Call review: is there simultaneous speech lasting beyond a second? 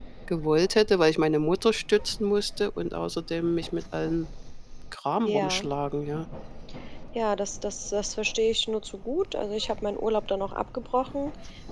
No

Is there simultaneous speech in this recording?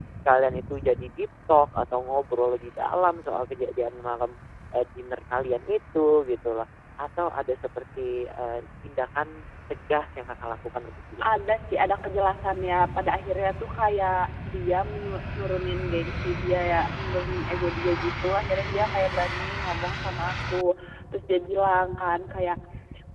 No

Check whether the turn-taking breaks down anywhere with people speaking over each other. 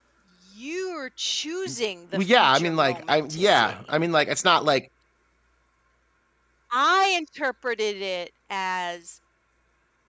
Yes, from 2.1 s

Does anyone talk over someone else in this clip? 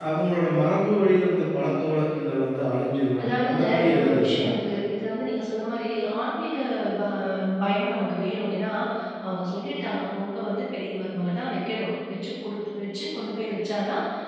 Yes, from 3.2 s

